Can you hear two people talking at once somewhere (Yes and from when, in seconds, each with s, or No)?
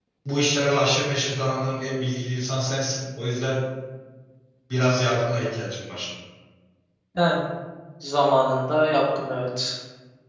No